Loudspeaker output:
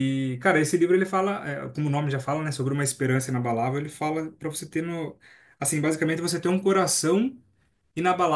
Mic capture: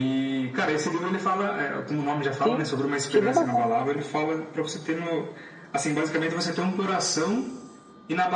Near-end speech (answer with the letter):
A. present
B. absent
A